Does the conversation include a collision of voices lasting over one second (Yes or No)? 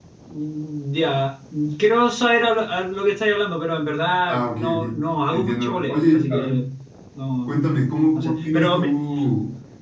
Yes